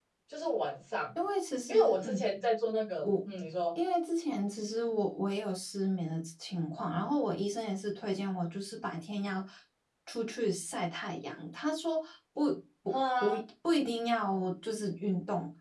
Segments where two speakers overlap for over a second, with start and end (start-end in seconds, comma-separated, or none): none